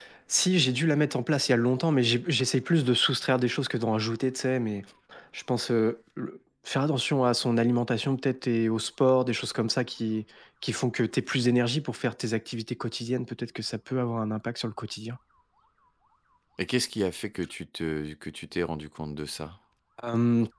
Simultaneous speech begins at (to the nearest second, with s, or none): none